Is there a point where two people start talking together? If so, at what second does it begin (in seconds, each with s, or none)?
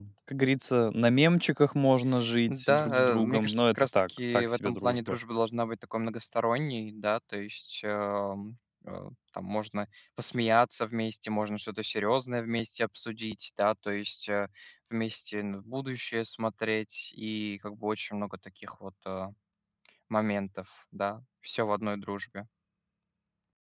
2.5 s